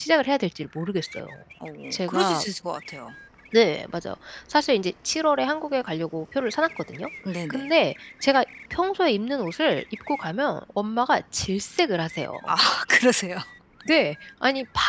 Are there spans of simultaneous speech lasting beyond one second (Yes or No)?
No